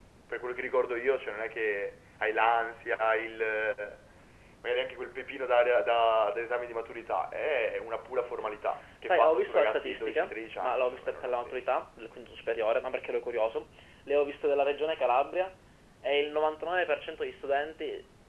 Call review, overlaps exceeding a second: present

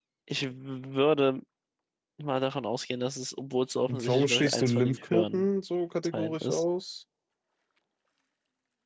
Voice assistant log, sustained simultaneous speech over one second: present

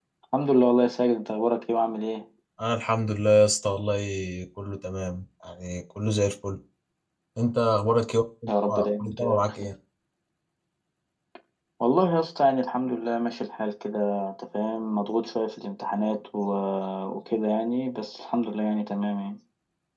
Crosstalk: present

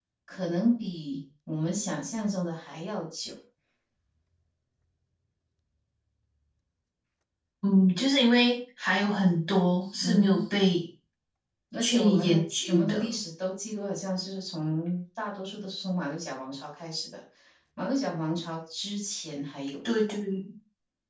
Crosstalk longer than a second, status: present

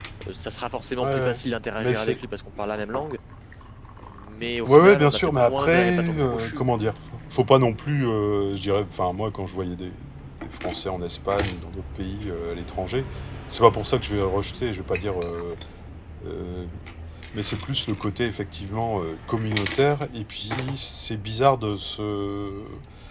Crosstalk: present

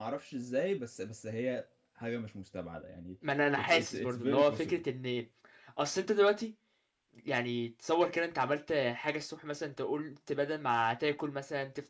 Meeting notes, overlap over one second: present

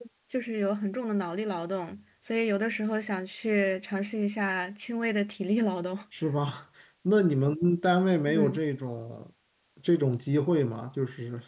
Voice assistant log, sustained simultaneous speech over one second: none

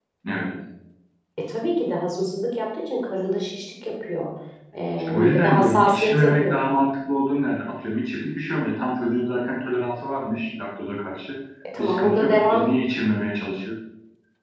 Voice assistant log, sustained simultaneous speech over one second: present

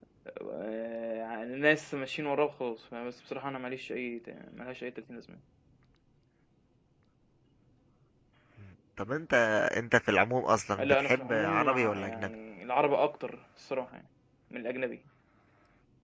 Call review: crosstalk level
present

